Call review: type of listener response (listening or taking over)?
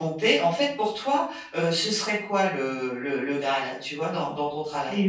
taking over